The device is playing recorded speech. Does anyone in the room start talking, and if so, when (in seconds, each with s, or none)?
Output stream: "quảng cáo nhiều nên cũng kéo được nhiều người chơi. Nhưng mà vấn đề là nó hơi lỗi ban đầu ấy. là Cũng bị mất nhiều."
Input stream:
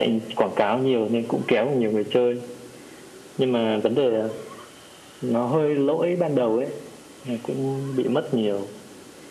none